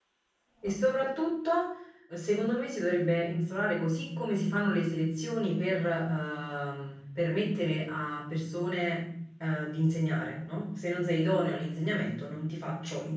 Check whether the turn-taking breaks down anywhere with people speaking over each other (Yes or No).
No